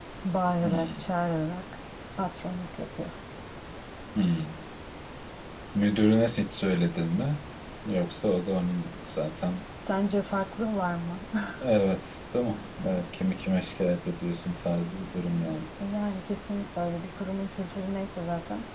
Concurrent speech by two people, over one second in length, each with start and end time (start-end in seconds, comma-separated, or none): none